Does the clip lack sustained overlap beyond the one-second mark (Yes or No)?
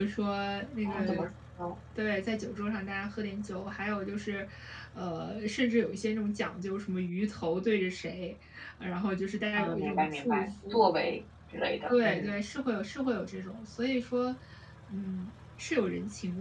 No